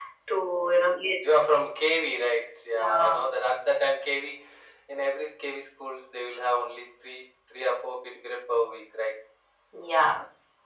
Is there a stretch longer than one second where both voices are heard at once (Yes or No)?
No